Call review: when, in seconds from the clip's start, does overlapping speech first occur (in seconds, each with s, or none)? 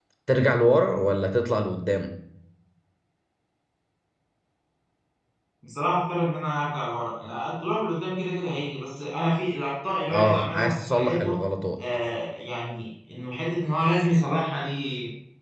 10.1 s